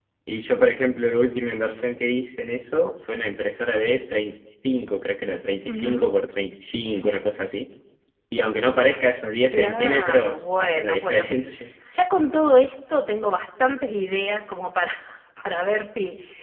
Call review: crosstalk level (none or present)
present